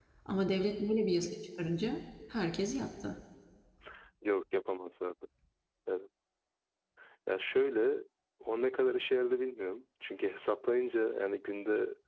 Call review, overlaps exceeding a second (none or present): none